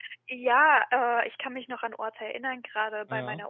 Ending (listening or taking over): listening